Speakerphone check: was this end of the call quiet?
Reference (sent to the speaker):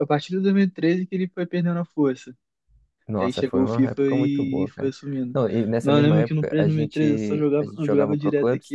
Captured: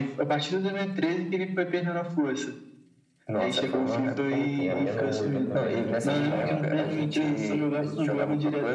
No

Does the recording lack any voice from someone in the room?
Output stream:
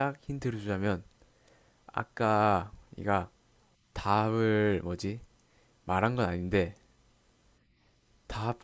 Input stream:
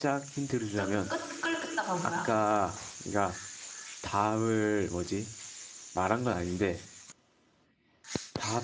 No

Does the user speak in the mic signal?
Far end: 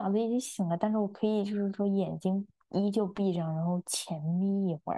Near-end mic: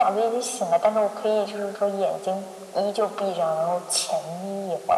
No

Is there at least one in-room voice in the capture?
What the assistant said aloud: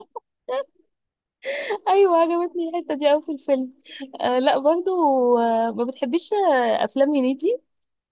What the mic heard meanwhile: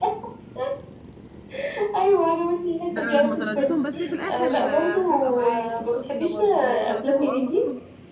Yes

